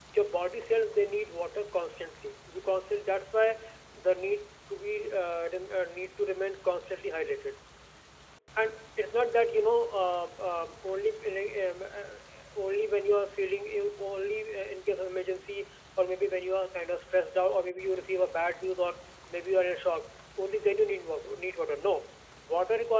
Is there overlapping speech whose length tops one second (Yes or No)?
No